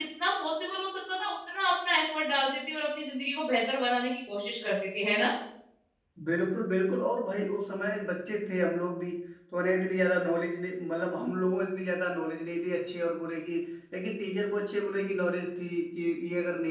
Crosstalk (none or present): none